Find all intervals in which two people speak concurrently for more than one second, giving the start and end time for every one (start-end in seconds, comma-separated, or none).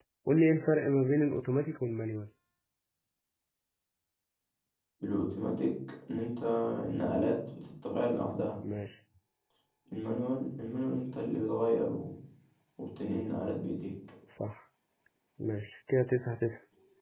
none